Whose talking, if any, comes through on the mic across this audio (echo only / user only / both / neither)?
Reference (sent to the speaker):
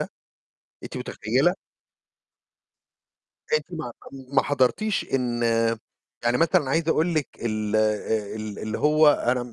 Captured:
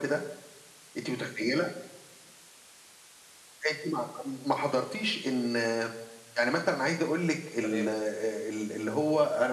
both